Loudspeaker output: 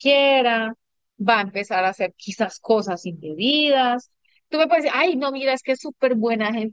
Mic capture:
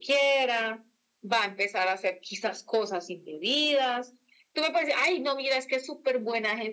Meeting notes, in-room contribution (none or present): none